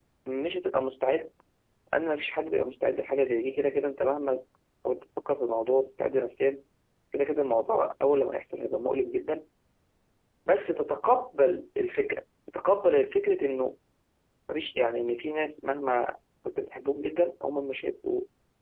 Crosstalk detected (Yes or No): No